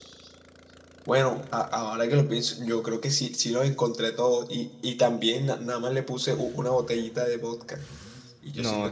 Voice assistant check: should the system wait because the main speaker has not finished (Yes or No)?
No